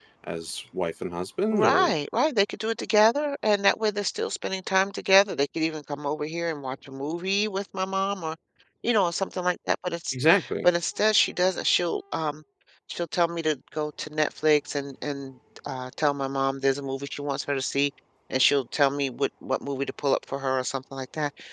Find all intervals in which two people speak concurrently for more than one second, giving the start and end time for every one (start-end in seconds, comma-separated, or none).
none